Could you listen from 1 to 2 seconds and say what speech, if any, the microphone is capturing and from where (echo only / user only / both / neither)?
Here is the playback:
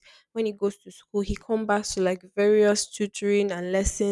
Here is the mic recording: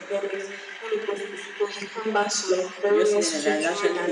echo only